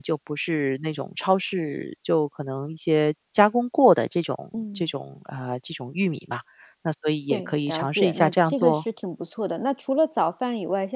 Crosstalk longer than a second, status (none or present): present